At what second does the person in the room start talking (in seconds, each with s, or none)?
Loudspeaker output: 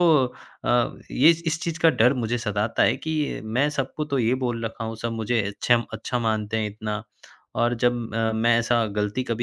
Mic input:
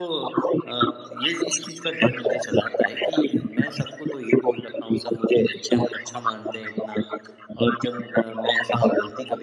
none